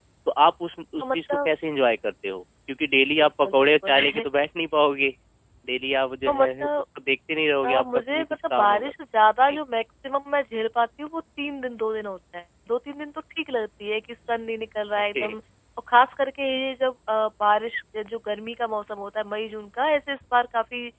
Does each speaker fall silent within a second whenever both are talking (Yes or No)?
No